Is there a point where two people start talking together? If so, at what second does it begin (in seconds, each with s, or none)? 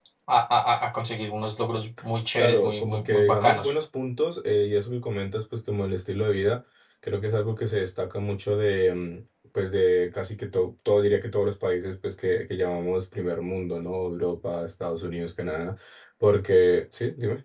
2.4 s